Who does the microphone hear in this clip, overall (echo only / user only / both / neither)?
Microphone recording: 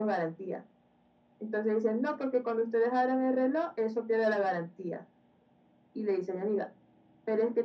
echo only